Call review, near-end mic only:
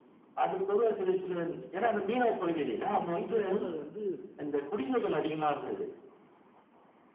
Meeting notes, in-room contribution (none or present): present